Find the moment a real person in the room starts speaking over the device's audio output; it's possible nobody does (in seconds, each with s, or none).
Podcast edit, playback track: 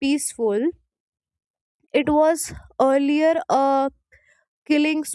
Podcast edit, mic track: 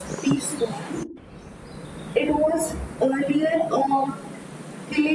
none